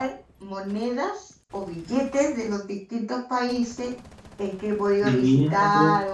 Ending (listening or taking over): listening